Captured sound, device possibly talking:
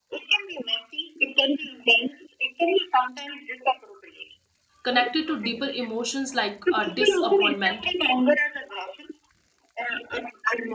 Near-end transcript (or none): connected to deeper emotions like uh, disappointment,